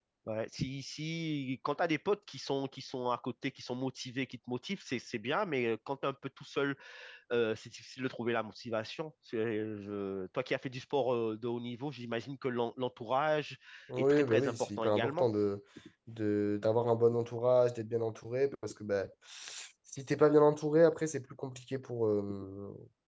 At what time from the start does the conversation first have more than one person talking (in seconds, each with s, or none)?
14.0 s